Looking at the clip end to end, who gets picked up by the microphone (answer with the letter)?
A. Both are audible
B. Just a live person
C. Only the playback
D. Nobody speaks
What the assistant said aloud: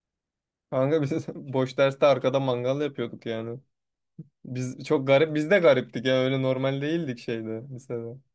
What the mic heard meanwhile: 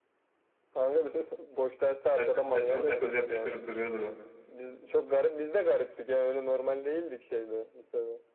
A